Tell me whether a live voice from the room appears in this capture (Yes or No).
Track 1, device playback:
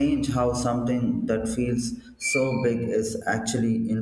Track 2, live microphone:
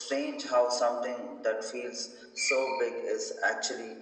No